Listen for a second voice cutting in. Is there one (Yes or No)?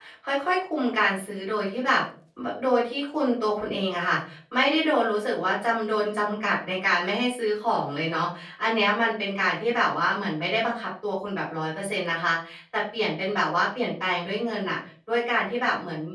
No